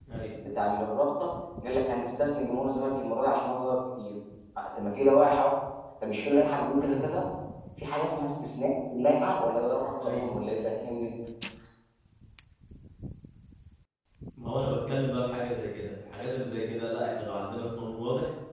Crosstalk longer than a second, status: none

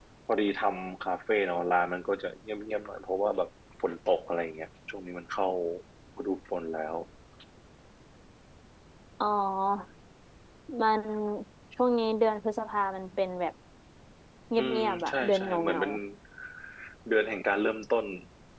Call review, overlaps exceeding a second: present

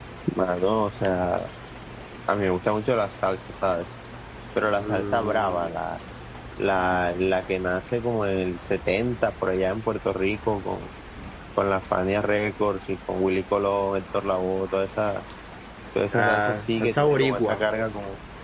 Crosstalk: present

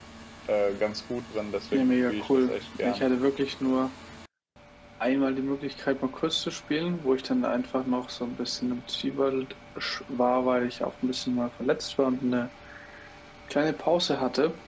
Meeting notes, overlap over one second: present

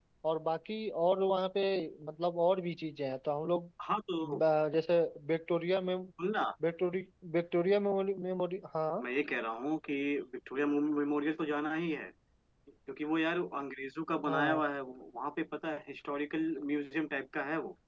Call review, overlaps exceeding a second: none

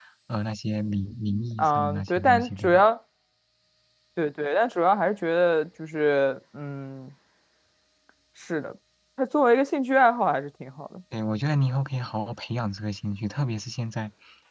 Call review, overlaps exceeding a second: present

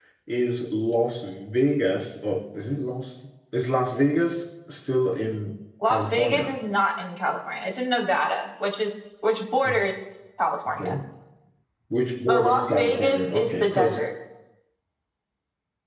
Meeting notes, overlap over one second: present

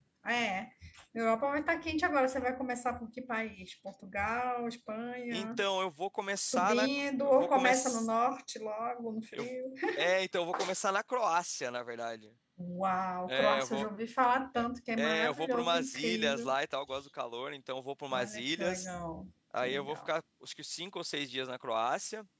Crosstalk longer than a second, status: present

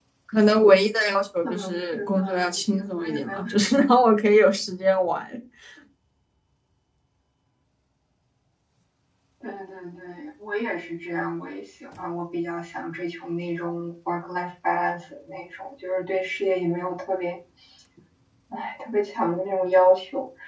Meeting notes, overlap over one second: present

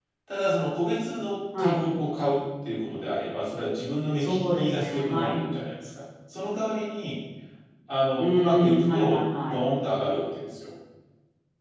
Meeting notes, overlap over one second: present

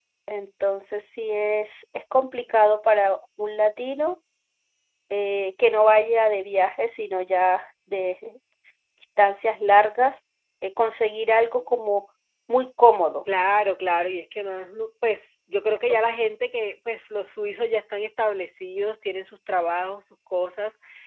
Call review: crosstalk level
none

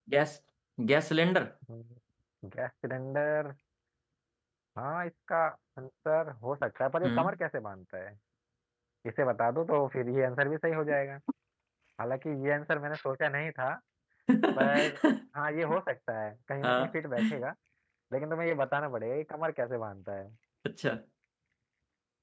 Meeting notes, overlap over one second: none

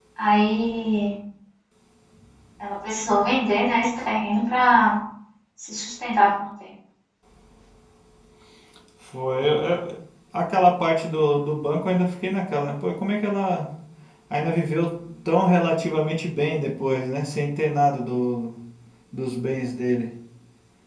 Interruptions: none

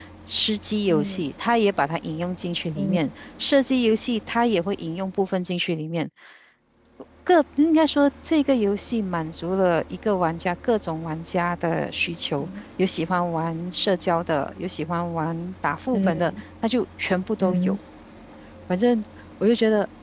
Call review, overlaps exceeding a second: none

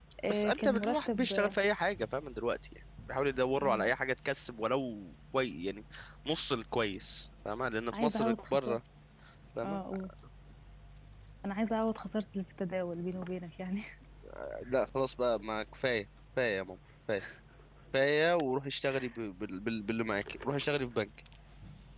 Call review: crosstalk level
present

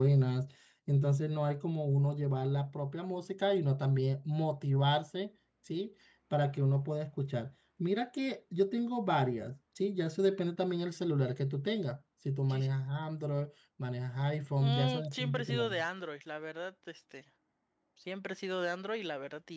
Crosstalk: present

